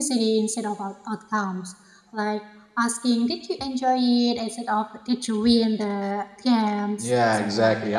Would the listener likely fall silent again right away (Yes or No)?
No